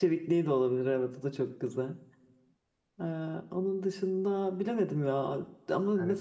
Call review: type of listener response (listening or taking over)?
listening